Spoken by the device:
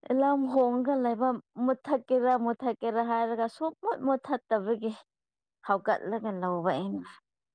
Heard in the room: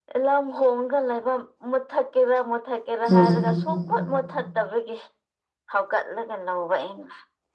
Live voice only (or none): ꯎꯝ